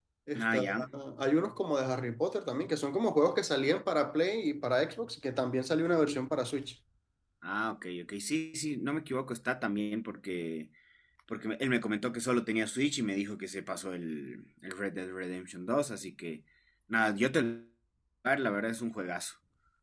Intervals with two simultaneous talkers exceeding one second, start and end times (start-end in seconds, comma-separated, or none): none